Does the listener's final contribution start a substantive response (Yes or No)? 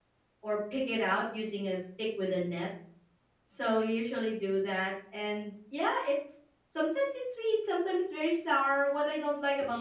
No